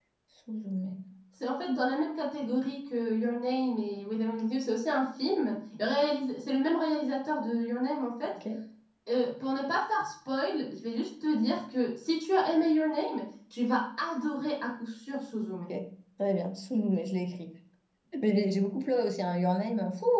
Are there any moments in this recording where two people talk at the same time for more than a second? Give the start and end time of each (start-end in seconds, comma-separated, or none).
none